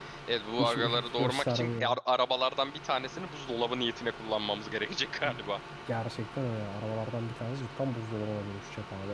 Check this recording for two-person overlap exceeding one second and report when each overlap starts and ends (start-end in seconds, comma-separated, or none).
0.6-2.0